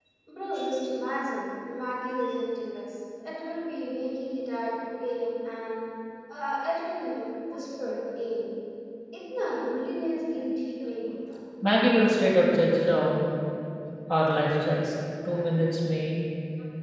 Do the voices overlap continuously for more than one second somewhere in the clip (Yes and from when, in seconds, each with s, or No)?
No